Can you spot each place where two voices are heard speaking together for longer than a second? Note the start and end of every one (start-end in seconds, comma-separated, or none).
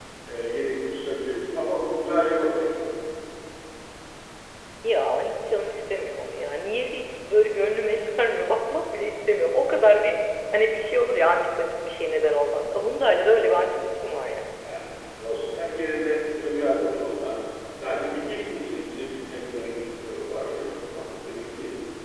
none